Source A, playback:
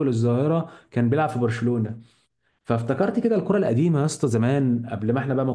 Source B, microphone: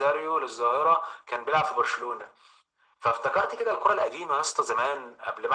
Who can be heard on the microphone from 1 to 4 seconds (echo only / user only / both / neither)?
echo only